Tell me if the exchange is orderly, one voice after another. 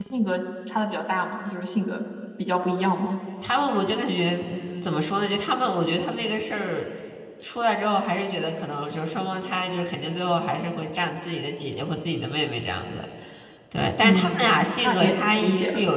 No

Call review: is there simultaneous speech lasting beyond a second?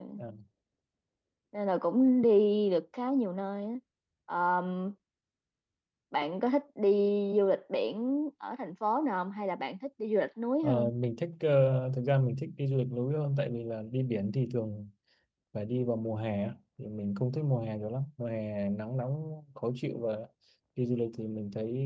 No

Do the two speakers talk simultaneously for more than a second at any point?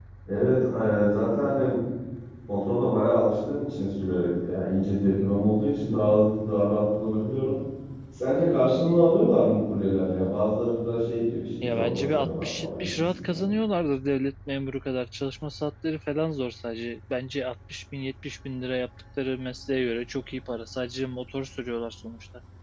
Yes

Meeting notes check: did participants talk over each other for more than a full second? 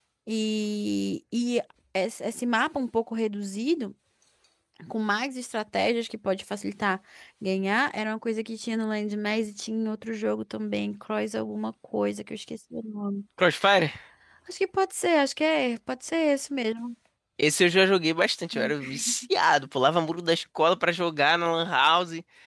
No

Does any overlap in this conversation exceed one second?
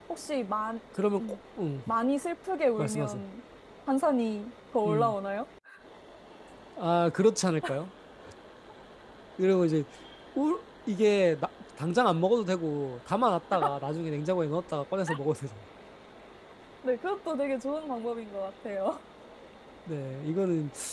No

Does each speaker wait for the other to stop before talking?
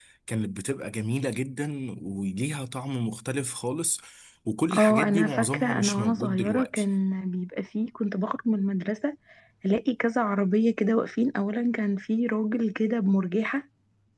No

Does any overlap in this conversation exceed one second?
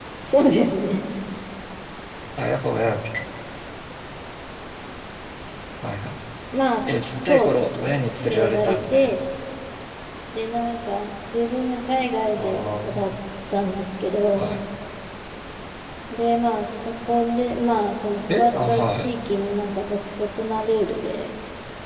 Yes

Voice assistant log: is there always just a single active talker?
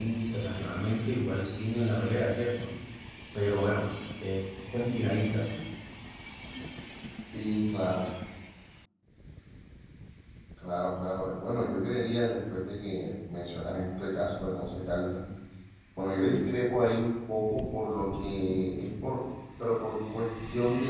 Yes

